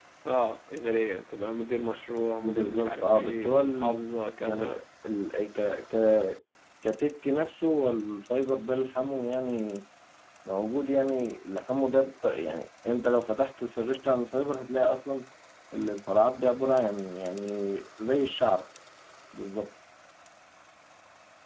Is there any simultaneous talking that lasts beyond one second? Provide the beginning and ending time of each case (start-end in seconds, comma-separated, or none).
2.4-4.0